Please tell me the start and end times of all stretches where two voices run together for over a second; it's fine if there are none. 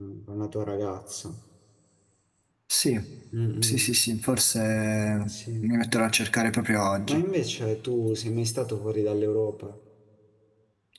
none

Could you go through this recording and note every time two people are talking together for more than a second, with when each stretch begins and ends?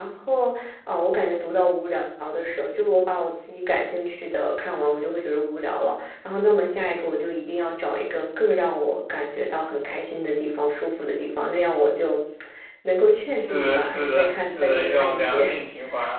13.3-15.4

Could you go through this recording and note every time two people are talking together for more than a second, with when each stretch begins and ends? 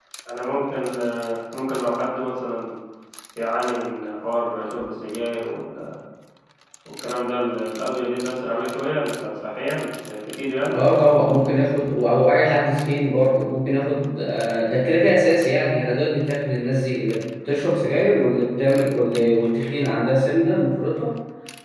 none

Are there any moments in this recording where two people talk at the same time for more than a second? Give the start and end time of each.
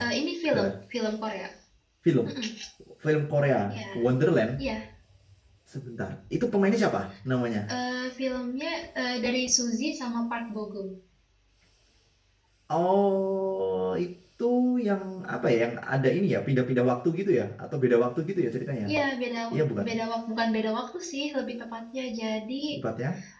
none

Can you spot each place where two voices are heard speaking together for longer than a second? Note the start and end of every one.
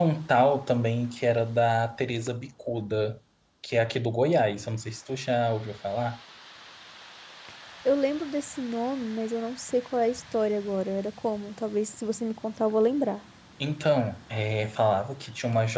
none

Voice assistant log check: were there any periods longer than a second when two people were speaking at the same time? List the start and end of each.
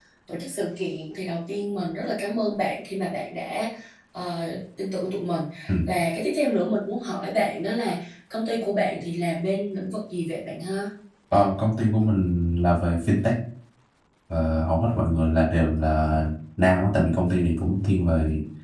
none

